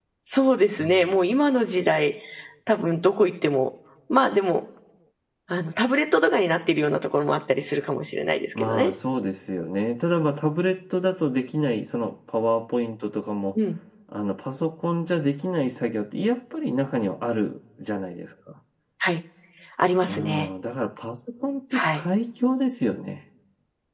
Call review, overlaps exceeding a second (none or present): none